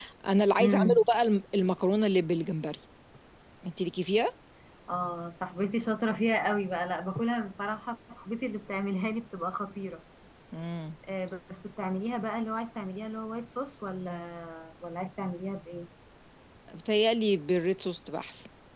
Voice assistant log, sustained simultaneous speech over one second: none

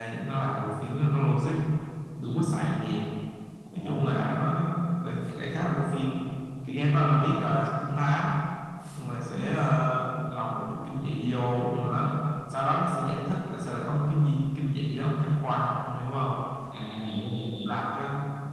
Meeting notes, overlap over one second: none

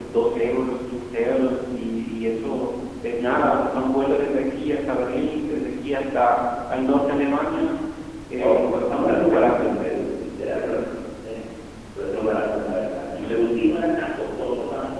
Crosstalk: present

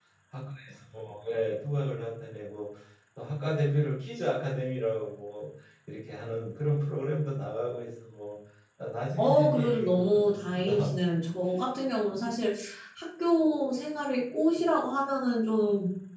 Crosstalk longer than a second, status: present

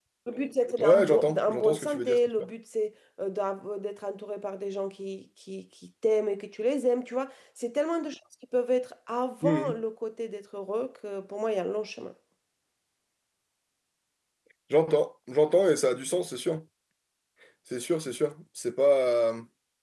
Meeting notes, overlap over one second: present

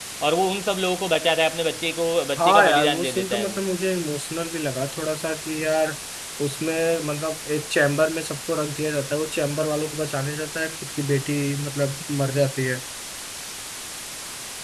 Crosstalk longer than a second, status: present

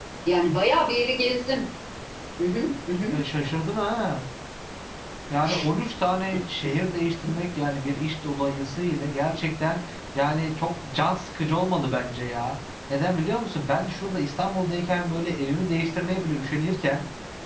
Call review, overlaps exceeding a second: none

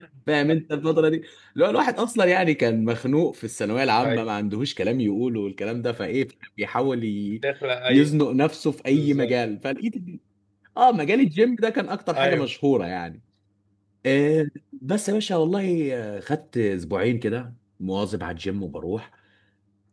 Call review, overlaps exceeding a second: none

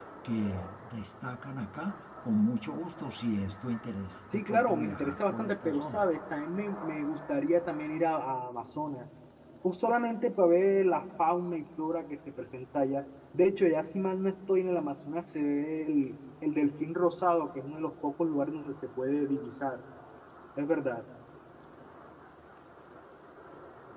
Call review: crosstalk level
present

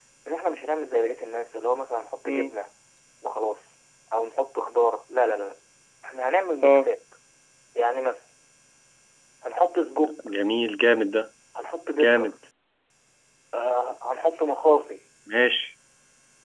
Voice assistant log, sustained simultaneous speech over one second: none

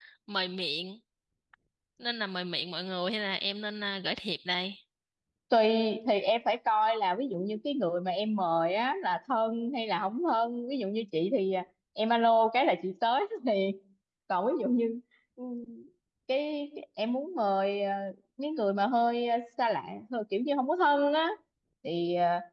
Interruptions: none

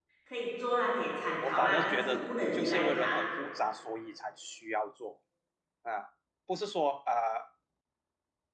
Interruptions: present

